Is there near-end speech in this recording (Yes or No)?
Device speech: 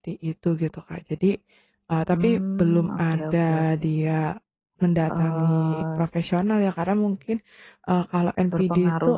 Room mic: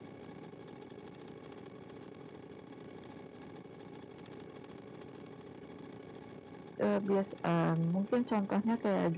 Yes